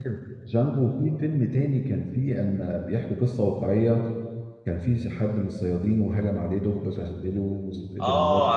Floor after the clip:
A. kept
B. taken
B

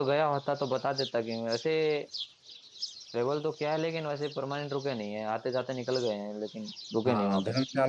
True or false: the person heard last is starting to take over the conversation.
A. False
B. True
B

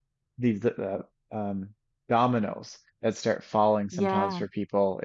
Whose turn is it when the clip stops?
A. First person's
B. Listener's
A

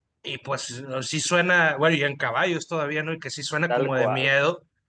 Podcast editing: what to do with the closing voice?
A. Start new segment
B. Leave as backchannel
B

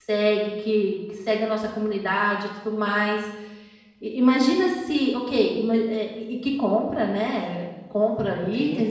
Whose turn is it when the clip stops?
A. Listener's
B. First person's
B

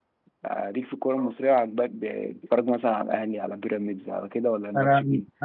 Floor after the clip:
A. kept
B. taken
B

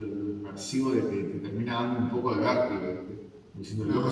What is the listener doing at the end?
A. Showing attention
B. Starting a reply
A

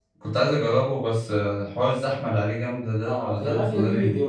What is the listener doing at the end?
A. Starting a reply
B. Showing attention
A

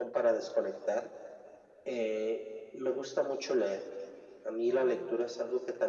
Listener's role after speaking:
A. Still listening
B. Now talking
A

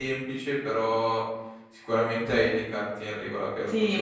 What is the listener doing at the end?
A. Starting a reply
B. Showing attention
A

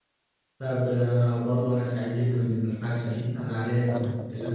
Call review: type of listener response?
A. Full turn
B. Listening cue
B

